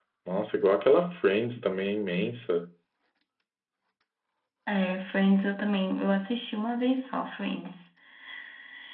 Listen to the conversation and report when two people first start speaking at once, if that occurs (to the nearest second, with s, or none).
none